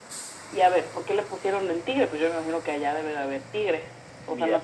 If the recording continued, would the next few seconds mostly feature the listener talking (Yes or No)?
Yes